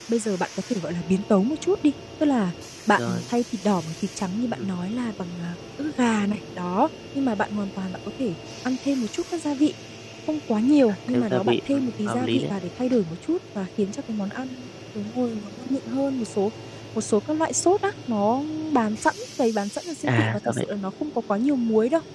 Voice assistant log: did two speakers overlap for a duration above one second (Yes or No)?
Yes